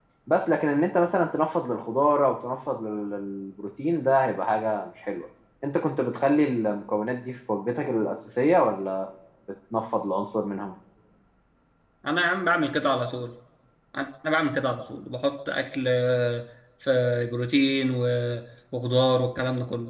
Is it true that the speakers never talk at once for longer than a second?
Yes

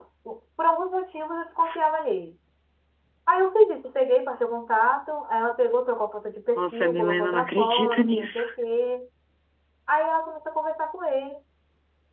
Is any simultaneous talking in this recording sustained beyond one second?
Yes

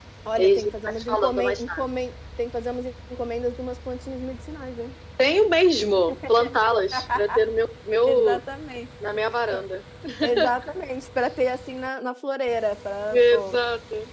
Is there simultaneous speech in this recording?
Yes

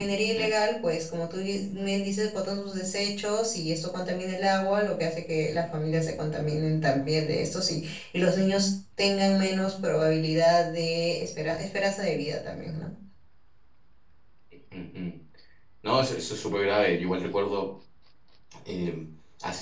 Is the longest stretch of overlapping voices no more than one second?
Yes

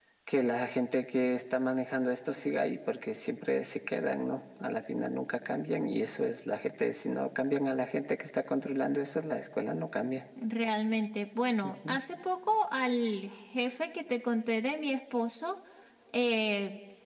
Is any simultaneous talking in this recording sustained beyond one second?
No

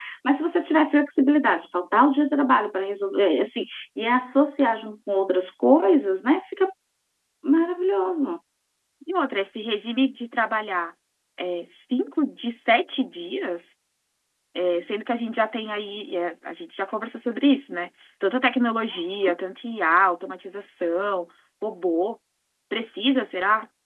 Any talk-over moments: No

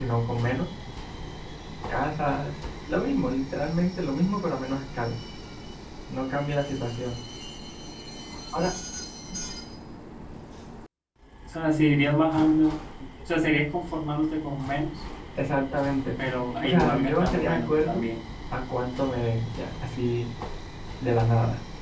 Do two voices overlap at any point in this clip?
Yes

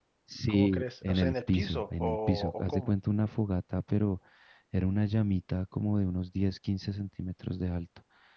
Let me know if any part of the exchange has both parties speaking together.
Yes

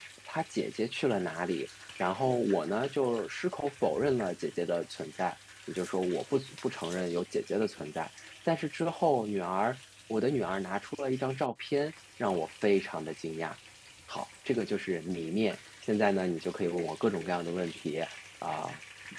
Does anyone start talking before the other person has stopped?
No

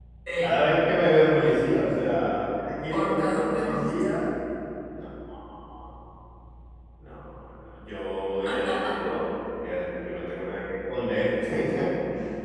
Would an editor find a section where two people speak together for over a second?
Yes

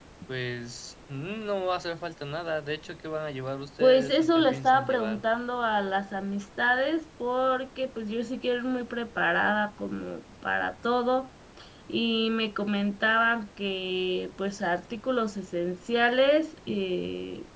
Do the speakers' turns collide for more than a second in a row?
Yes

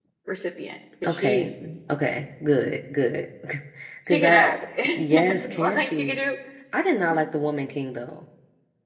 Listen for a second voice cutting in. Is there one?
Yes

